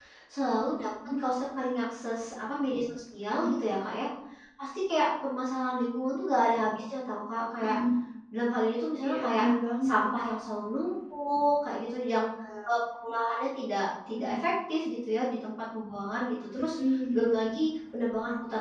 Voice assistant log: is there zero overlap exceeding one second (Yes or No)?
Yes